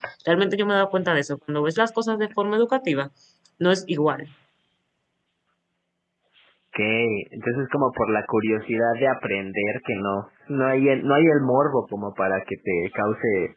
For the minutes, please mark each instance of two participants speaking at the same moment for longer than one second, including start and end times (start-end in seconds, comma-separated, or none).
none